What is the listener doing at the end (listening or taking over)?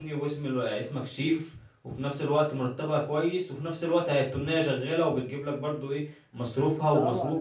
taking over